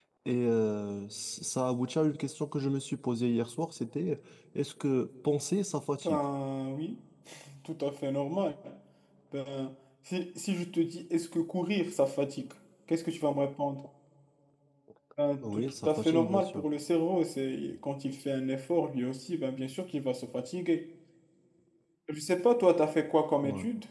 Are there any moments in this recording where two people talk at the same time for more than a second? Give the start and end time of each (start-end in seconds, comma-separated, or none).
15.4-16.6